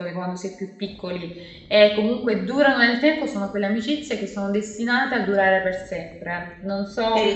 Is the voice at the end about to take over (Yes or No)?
No